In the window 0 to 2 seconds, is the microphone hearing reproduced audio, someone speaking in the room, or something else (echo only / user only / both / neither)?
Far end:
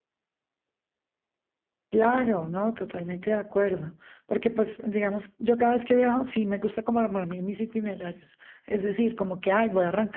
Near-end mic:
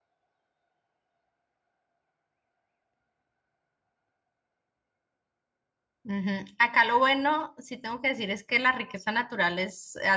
neither